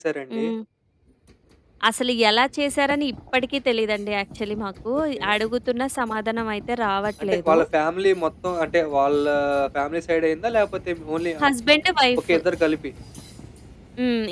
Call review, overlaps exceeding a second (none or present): none